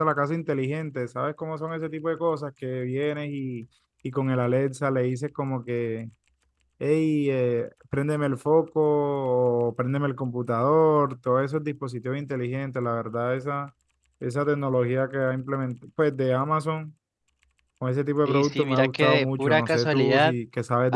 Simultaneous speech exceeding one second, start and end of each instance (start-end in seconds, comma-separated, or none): 18.2-20.3